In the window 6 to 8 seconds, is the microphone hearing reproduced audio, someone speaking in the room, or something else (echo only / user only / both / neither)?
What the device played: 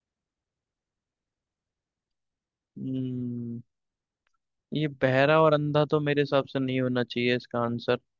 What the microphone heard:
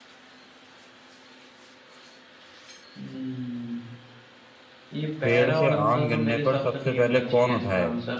both